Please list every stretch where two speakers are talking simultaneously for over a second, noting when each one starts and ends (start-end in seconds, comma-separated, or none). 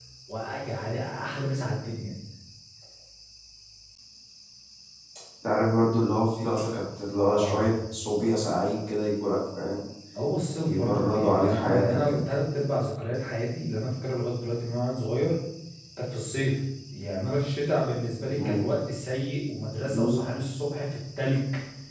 10.6-12.3